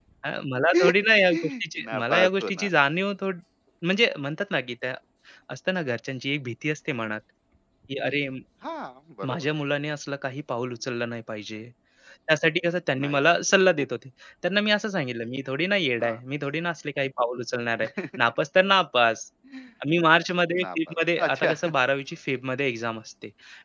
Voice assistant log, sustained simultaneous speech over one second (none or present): present